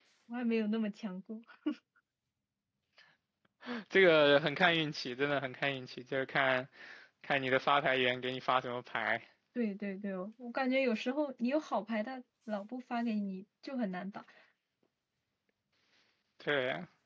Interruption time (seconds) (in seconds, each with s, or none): none